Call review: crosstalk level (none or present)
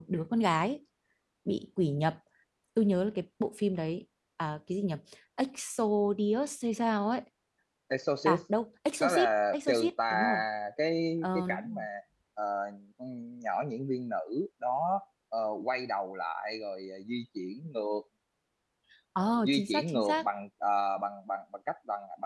present